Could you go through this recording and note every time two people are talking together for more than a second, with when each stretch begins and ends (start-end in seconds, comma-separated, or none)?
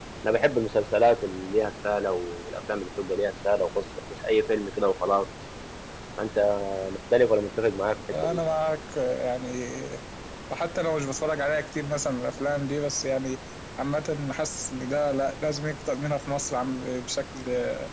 none